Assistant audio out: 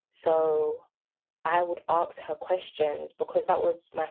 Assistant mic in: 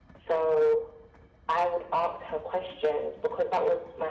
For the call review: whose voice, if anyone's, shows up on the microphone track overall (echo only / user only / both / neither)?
echo only